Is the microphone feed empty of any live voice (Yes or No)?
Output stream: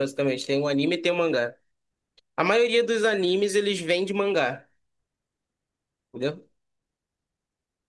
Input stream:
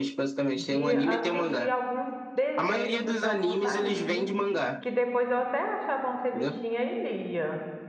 No